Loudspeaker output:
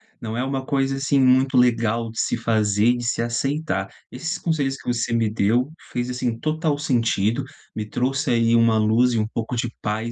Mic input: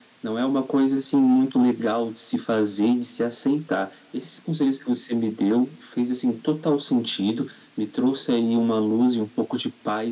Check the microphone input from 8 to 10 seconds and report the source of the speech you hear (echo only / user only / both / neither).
echo only